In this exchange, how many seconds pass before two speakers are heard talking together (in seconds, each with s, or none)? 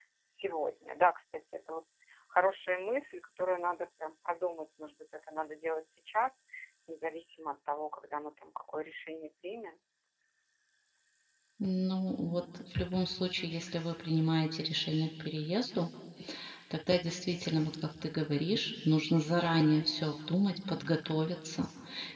none